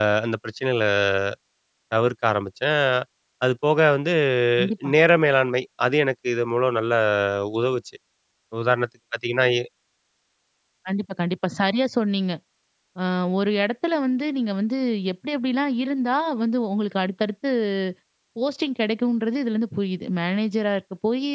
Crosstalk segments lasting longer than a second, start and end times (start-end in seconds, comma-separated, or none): none